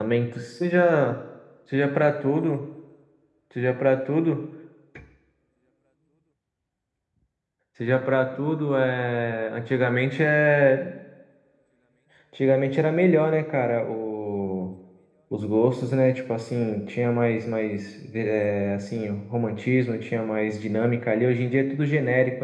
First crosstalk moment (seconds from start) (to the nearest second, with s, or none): none